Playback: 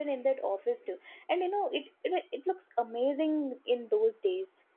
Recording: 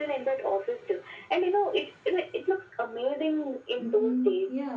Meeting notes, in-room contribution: present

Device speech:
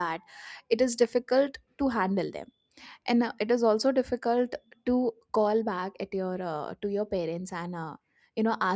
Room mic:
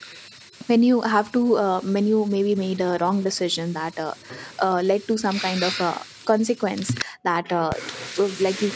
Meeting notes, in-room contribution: present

